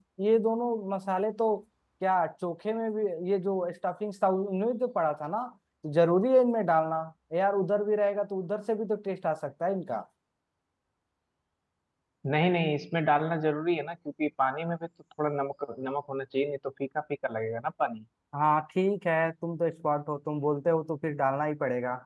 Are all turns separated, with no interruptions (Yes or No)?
Yes